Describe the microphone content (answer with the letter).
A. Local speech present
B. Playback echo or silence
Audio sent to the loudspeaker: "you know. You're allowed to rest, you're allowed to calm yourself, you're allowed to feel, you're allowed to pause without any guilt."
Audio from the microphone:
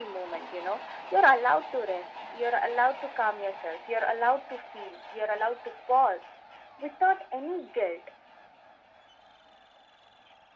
B